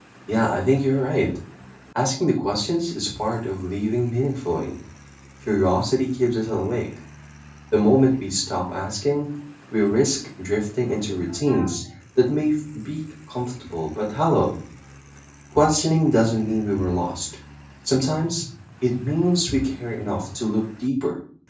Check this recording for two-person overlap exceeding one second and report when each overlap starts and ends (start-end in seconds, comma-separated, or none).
none